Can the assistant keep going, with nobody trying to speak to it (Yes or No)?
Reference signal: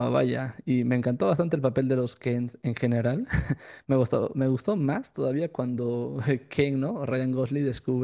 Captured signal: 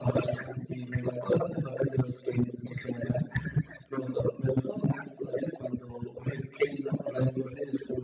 Yes